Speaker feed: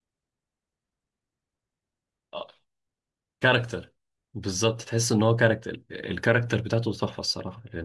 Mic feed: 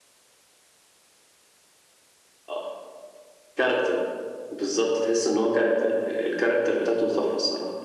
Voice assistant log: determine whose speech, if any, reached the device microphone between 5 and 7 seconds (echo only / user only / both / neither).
echo only